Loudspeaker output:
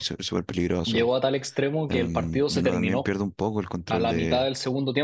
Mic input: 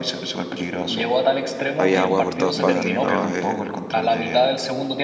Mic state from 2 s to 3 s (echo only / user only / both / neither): both